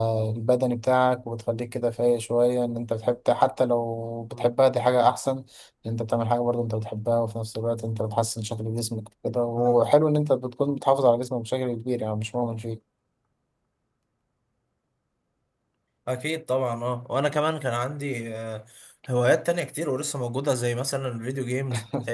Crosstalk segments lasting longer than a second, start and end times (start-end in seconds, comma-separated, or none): none